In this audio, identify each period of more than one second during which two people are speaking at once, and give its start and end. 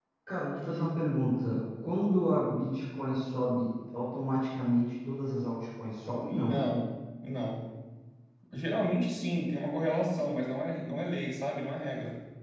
none

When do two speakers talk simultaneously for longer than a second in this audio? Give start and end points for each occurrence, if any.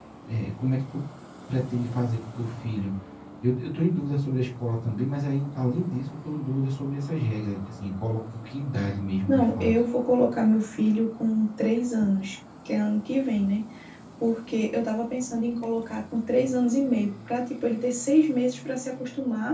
none

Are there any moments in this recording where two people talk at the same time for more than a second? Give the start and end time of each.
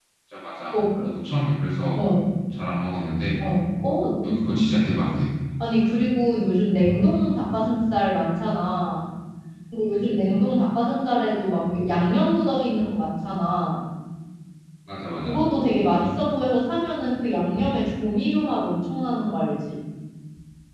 none

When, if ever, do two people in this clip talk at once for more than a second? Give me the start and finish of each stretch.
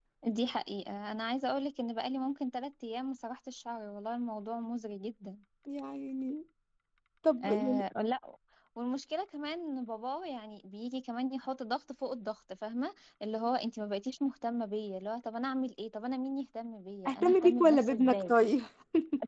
17.0-18.3

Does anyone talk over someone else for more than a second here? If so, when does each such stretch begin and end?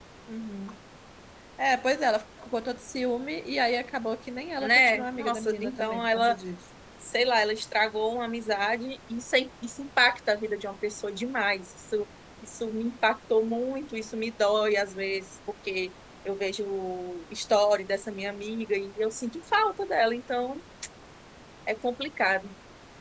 4.6-6.4

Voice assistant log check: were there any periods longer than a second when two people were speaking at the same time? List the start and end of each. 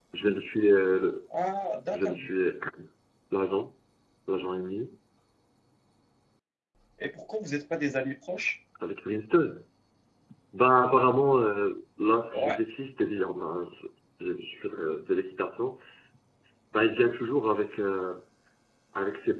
none

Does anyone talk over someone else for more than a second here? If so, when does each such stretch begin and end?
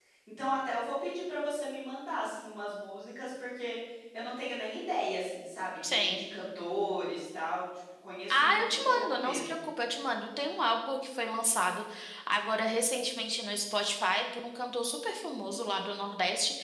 8.3-9.6

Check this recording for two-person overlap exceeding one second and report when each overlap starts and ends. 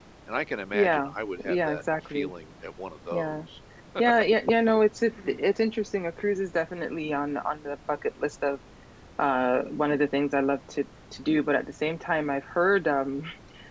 0.7-2.3

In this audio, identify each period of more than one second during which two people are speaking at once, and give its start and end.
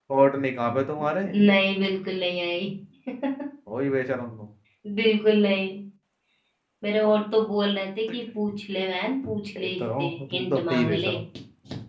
9.6-11.2

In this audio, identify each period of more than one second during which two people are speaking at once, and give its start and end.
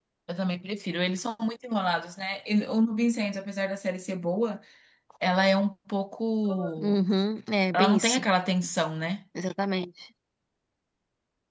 none

